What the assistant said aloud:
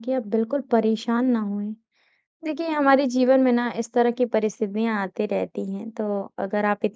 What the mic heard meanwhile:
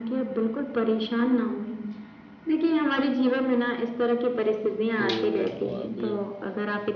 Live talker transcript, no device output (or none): तो अब